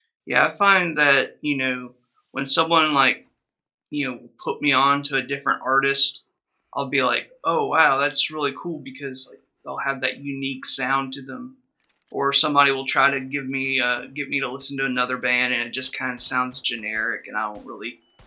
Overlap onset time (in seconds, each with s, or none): none